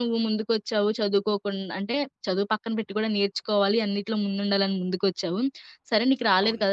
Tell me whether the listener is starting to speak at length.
No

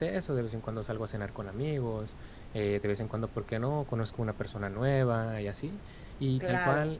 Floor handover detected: No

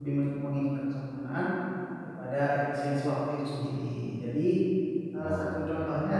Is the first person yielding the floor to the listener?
No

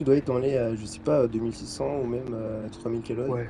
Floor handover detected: Yes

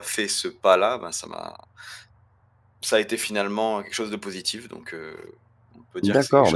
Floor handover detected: Yes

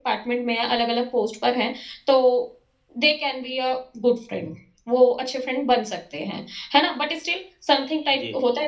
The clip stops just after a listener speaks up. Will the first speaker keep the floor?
Yes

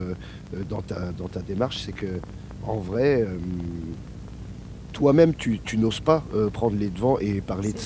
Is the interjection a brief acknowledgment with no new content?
Yes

